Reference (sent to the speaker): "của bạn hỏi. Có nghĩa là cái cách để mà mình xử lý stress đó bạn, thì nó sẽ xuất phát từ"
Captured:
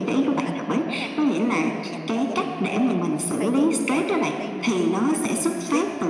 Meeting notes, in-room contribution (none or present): present